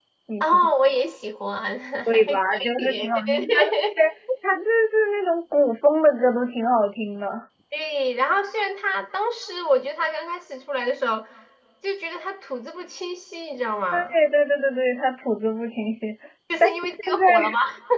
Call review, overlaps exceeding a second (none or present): present